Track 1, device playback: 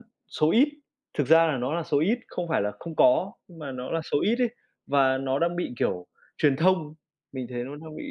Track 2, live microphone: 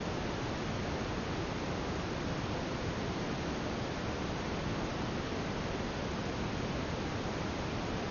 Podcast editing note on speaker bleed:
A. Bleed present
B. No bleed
B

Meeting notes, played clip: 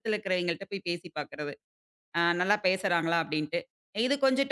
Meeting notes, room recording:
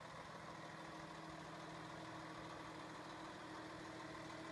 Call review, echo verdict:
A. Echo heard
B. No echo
B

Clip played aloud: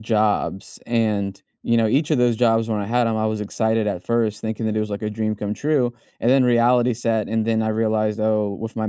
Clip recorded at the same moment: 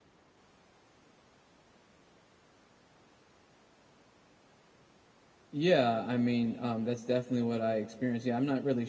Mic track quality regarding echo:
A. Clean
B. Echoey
A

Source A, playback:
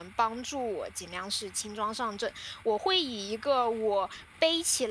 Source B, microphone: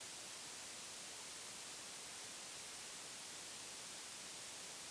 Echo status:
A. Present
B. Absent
B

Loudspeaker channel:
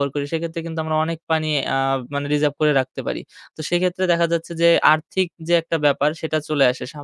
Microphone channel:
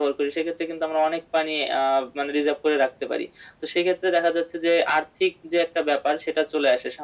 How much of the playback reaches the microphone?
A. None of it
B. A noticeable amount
B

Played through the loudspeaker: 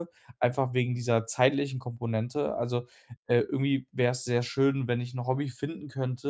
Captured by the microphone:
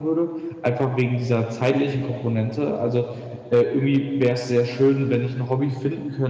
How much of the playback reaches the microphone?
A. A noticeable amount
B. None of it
A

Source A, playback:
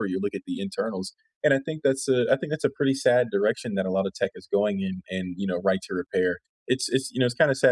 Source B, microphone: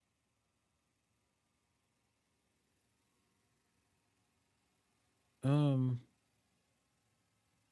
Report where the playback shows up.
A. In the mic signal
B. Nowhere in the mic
B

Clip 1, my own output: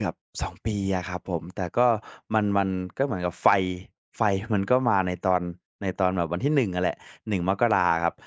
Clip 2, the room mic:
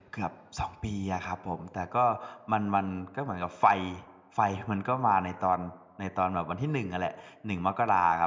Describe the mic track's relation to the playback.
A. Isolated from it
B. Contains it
B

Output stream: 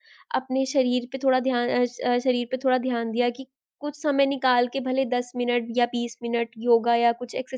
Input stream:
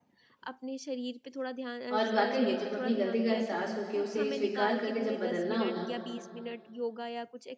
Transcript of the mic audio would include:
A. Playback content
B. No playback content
A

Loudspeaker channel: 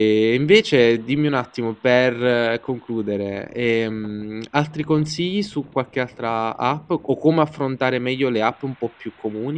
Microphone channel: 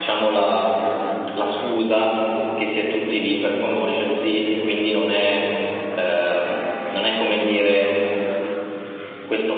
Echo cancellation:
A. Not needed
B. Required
A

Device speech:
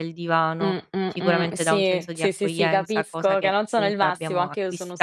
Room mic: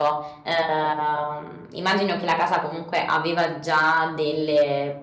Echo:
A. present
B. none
B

